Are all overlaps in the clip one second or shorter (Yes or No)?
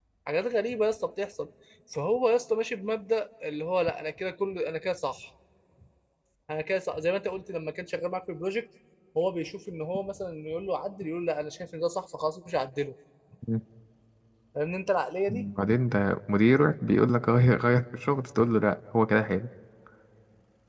Yes